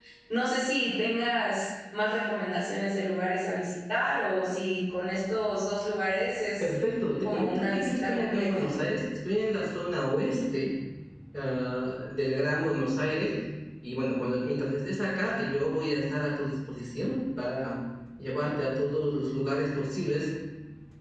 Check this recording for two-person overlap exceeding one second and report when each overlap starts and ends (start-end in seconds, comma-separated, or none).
7.2-8.7